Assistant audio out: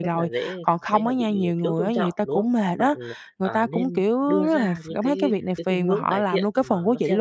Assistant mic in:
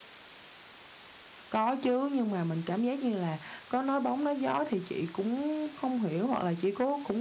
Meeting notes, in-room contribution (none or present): present